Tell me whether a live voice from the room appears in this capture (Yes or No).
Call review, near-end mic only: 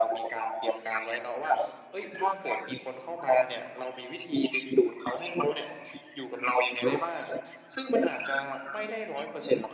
No